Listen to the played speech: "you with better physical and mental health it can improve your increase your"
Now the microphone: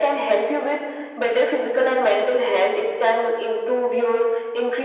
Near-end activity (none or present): none